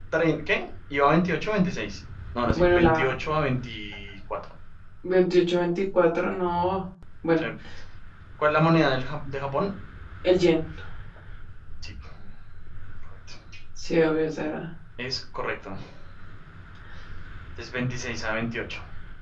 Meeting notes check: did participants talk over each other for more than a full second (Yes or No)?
No